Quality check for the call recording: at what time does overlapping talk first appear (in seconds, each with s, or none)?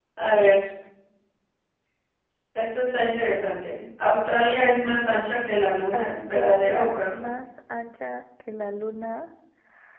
5.9 s